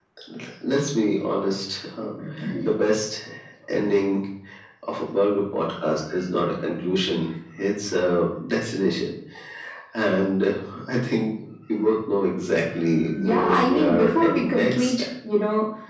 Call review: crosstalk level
present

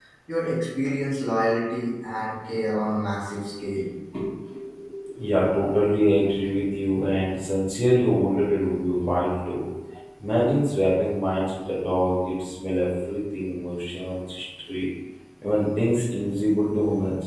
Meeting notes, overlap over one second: none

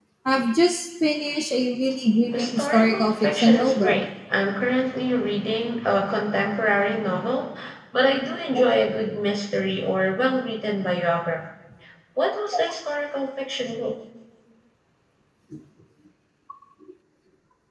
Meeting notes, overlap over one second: present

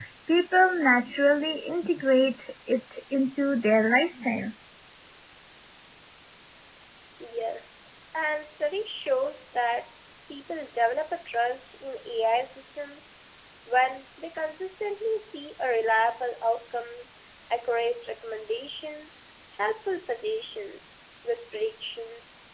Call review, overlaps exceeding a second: none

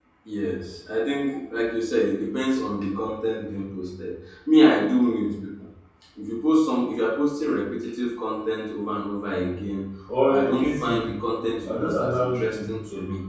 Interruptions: present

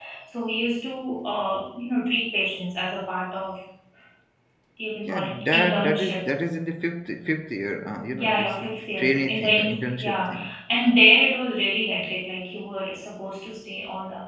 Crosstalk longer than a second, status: present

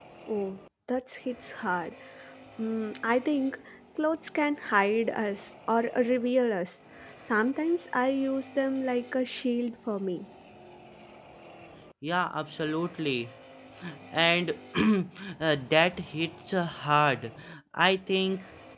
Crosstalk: none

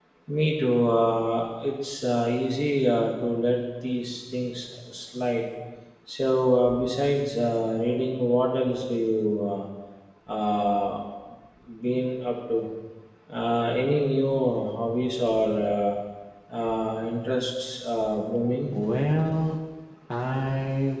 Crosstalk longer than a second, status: none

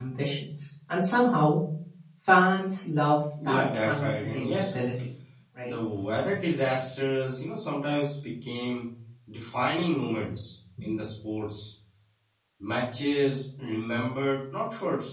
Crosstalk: present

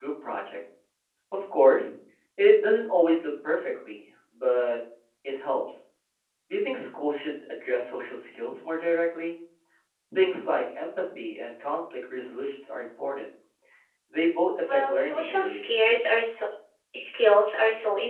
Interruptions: present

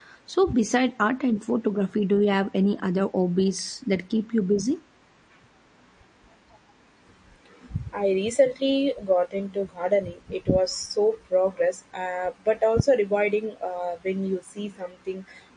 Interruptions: none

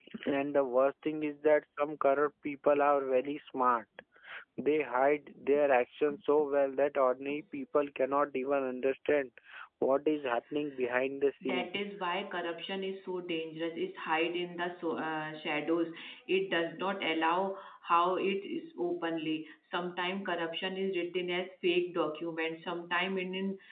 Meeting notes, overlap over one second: none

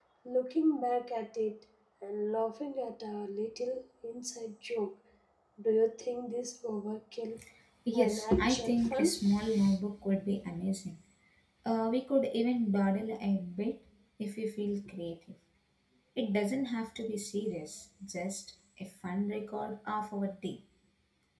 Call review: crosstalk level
present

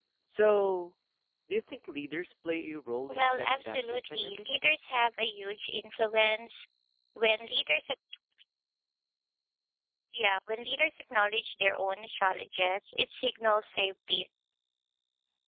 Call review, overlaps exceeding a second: present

